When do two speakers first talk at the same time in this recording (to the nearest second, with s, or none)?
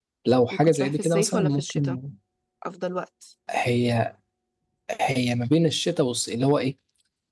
1 s